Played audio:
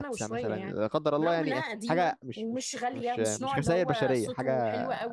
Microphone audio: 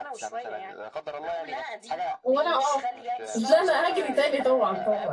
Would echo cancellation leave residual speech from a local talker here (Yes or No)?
Yes